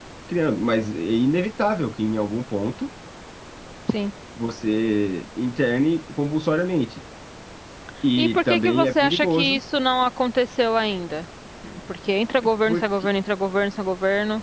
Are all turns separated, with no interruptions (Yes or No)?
No